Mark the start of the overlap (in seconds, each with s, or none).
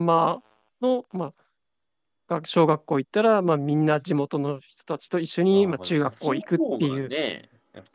5.5 s